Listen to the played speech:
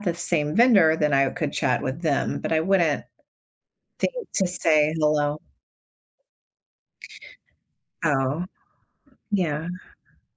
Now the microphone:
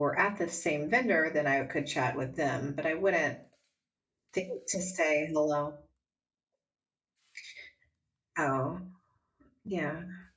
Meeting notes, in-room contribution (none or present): none